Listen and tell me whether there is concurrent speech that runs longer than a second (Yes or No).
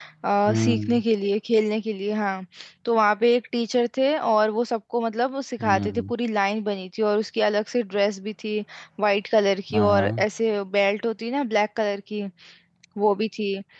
No